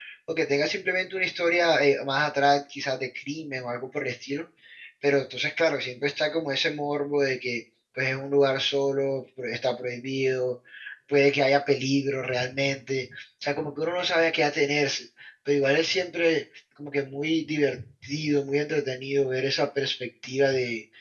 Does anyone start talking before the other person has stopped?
No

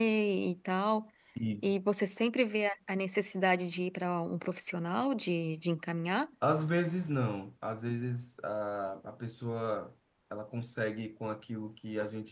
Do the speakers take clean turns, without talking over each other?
Yes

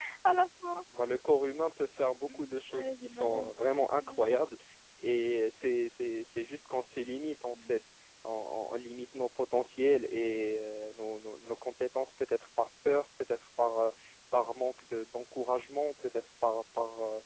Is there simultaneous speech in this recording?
Yes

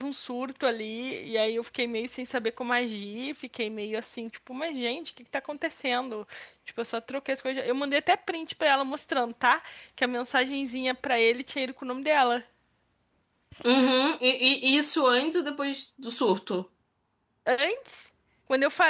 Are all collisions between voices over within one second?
Yes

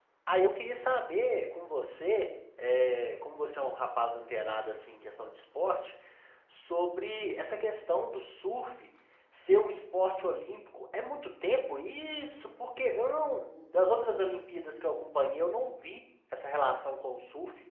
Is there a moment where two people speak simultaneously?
No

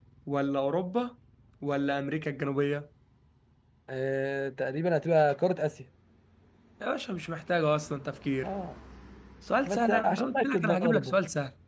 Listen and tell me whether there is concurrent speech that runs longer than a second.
Yes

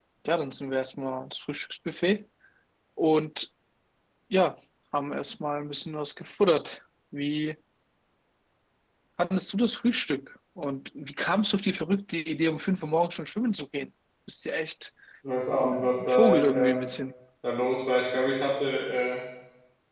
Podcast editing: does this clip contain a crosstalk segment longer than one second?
Yes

